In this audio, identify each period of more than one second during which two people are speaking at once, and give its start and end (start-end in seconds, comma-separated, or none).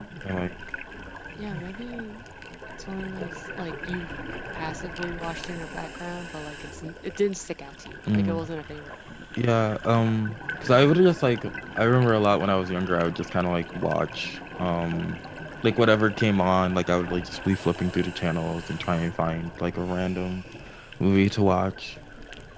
none